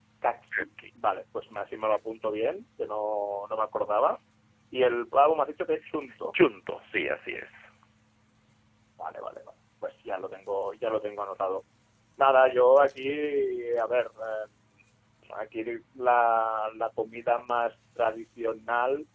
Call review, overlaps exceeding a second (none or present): none